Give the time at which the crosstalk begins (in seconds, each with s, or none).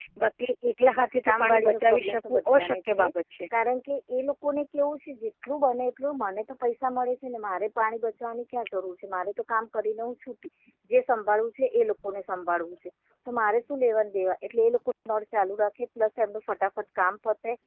1.3 s